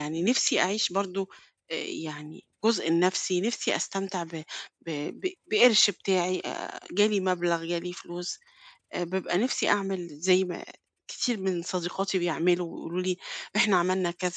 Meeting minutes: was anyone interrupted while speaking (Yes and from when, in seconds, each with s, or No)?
No